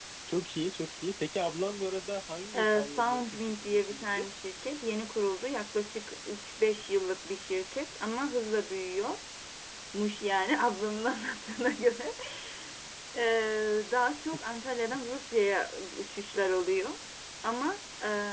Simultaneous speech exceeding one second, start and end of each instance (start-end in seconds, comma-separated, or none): 2.5-4.3